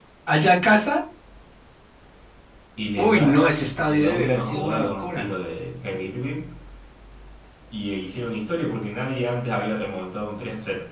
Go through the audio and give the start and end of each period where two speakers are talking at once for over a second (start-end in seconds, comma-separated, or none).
3.0-5.3